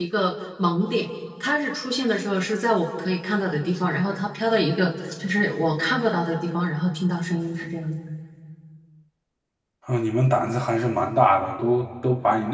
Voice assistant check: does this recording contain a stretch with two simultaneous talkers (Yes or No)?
No